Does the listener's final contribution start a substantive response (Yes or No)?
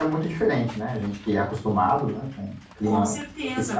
Yes